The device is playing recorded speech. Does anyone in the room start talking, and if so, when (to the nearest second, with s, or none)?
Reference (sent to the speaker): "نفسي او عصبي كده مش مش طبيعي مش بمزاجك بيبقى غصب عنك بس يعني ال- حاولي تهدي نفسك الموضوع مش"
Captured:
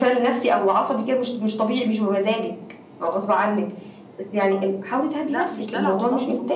5 s